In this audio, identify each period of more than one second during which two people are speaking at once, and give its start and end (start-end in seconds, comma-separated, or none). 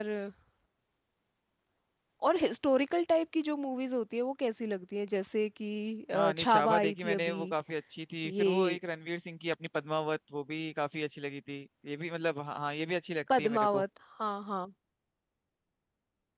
6.1-7.5